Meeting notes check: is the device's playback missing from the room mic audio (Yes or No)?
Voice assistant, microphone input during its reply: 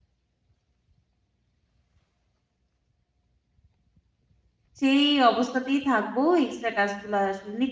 Yes